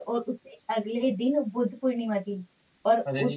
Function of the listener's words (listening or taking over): listening